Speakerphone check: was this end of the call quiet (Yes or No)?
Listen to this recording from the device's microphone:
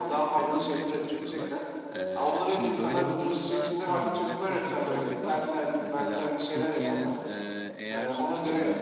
No